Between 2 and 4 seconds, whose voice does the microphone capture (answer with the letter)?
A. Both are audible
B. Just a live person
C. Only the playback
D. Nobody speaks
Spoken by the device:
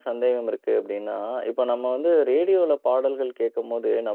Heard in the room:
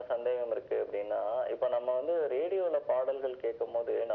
C